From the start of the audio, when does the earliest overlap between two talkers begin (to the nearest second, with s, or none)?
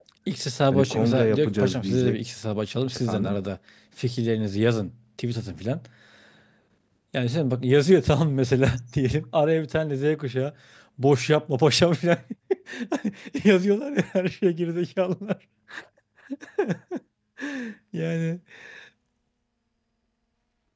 1 s